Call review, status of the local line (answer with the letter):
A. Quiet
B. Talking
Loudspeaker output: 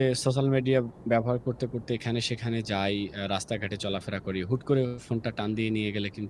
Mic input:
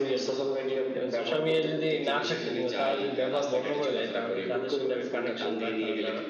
B